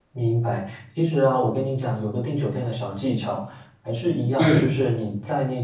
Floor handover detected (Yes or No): No